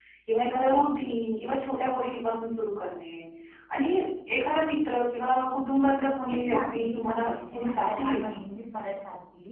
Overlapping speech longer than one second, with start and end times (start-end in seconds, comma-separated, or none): 6.0-8.4